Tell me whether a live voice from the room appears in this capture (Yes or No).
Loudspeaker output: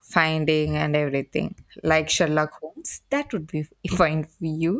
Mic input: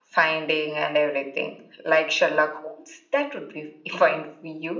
No